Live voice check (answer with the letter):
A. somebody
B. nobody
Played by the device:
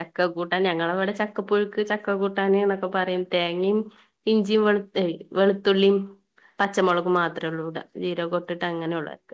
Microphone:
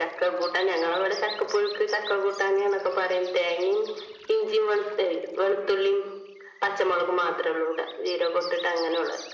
B